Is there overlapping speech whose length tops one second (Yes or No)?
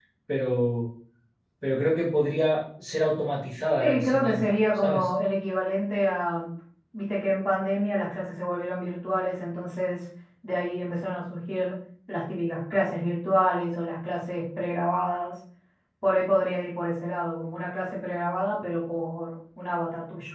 Yes